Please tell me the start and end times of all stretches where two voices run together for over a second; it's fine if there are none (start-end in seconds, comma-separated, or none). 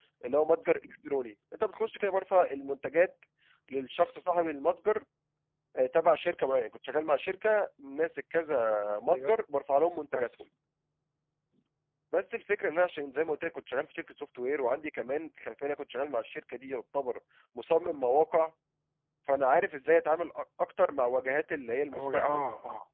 none